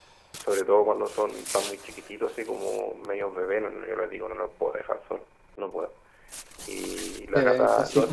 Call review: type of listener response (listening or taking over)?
listening